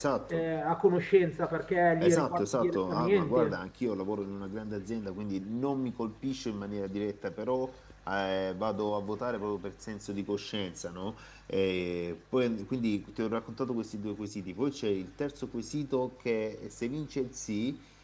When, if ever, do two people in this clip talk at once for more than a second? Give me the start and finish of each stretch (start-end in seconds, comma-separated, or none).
2.0-3.6